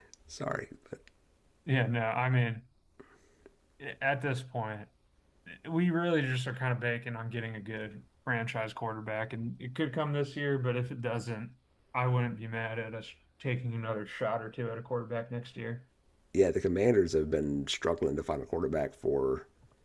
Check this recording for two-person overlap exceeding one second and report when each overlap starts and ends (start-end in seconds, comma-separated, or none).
none